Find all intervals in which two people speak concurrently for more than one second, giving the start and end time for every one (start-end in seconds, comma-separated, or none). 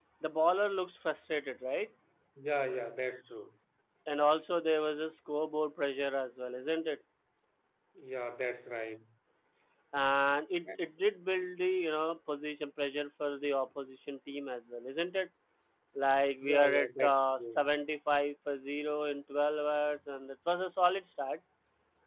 16.4-17.6